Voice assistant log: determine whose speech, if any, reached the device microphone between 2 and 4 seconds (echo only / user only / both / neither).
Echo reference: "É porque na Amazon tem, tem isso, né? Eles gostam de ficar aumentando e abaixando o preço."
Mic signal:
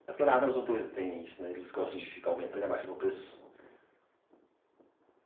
echo only